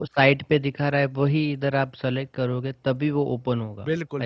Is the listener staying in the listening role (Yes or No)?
No